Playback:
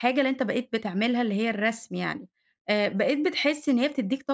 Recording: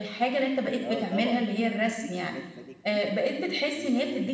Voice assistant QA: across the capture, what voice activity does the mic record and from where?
both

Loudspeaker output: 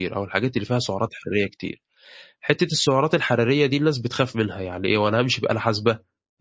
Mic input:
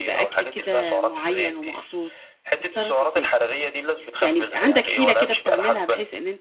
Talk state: both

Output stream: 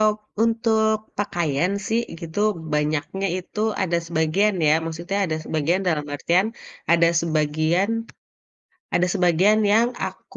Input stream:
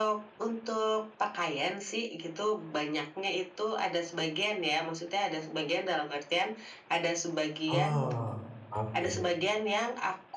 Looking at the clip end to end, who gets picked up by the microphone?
both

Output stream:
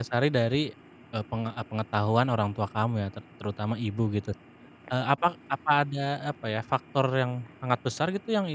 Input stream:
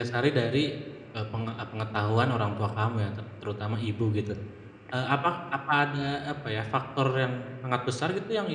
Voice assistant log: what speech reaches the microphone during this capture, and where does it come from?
echo only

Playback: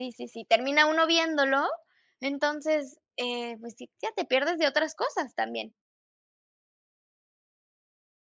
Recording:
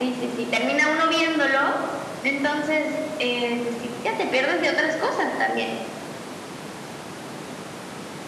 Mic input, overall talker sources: echo only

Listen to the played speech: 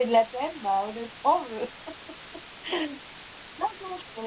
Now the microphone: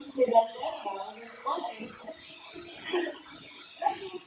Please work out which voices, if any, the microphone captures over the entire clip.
echo only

